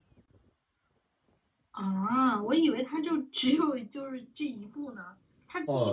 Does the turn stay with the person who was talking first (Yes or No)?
No